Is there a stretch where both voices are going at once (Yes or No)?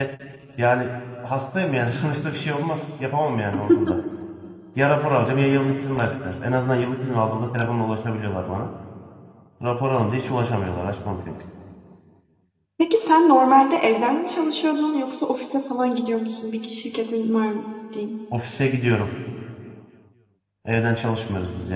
No